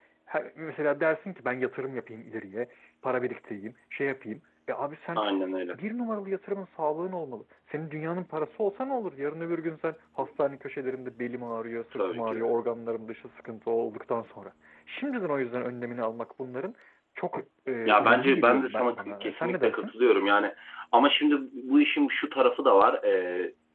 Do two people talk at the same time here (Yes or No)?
Yes